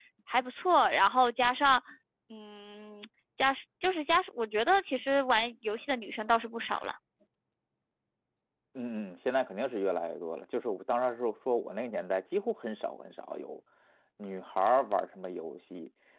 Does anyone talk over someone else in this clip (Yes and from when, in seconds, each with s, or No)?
No